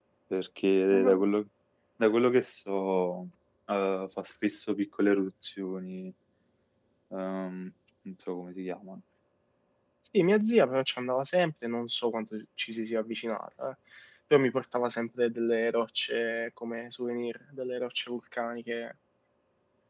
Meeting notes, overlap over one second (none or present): none